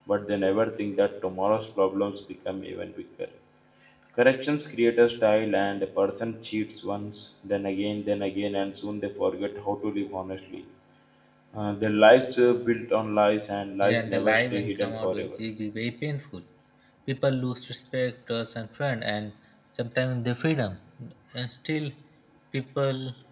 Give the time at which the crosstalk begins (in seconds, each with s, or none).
13.8 s